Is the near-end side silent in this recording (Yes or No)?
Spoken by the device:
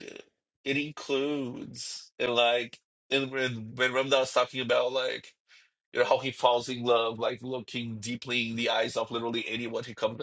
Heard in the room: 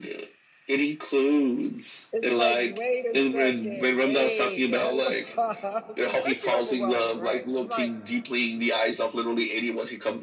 No